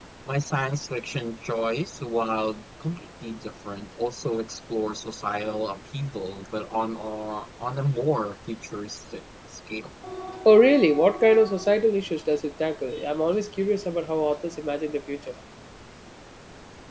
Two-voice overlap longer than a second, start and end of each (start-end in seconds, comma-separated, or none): none